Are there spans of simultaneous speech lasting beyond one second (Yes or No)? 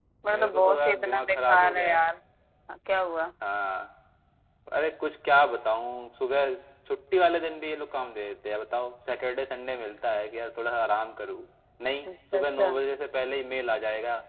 Yes